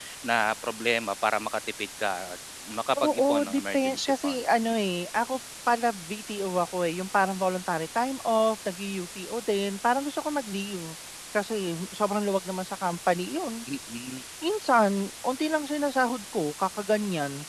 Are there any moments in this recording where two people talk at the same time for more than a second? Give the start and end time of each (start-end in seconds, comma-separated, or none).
3.0-4.3